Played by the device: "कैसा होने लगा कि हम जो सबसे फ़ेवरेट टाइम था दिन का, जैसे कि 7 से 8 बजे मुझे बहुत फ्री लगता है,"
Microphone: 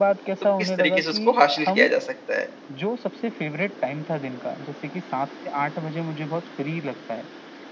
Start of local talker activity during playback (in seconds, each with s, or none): 0.4 s